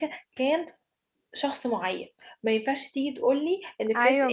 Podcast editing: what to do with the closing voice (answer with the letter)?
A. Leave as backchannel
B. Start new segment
A